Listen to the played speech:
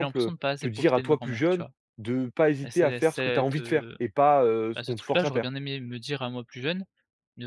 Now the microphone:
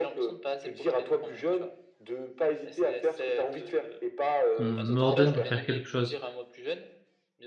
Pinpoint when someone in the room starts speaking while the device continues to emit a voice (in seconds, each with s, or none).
4.5 s